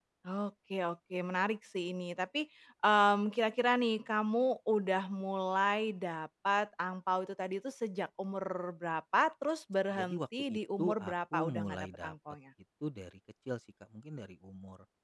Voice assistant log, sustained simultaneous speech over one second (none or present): present